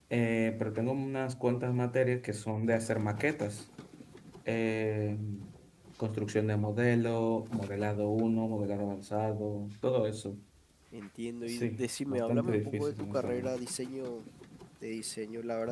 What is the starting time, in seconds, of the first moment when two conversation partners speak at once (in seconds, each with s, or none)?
11.4 s